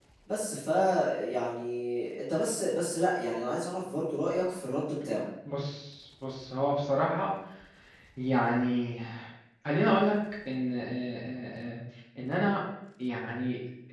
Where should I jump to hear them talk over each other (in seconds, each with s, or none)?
none